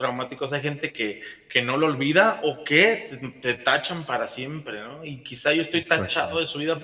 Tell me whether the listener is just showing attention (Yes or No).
Yes